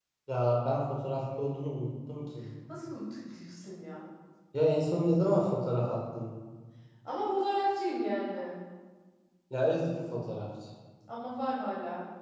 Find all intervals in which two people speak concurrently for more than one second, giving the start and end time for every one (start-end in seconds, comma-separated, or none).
none